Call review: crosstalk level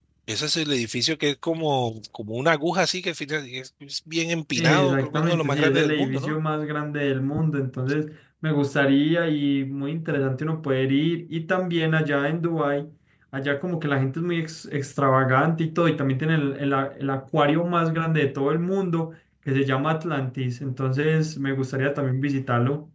present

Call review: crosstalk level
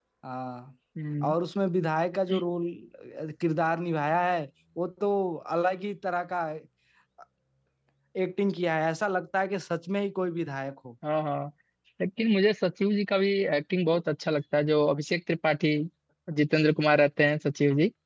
none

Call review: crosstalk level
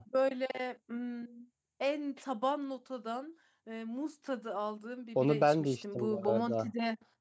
present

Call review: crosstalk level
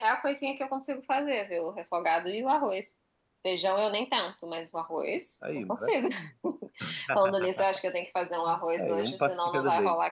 present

